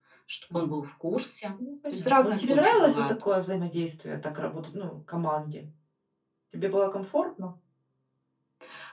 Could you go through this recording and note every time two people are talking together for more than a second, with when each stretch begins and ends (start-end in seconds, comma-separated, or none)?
1.9-3.1